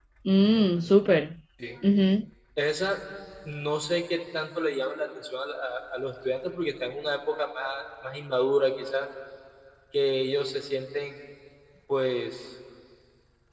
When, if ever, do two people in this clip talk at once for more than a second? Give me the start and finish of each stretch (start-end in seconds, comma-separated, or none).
none